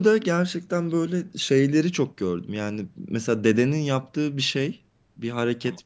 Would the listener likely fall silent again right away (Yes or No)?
Yes